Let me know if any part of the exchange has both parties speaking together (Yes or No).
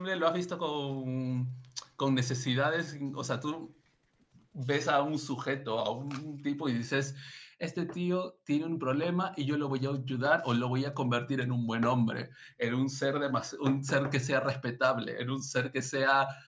No